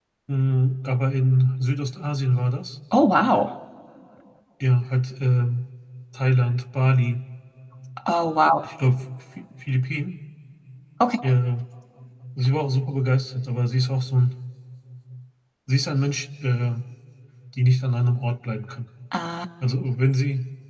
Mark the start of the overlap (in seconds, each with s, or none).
none